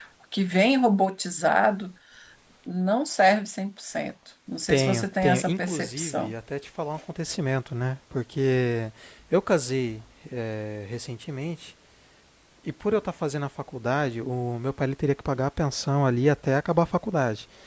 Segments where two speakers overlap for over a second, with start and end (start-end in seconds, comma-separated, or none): 4.7-6.3